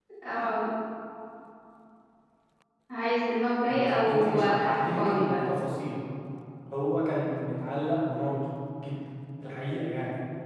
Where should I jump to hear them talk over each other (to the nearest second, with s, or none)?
4 s